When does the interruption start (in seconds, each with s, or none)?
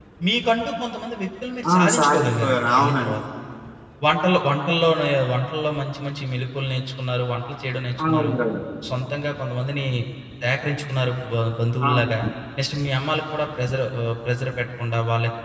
1.7 s